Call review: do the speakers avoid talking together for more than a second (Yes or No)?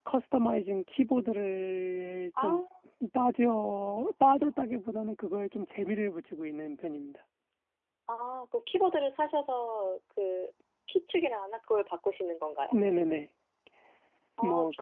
Yes